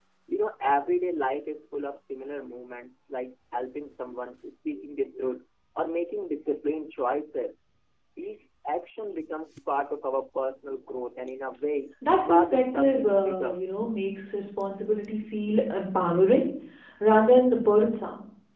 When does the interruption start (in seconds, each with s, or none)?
12.3 s